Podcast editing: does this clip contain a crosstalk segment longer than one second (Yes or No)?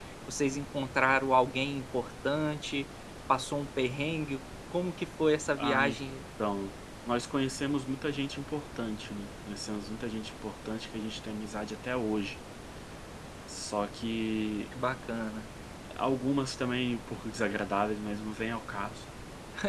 No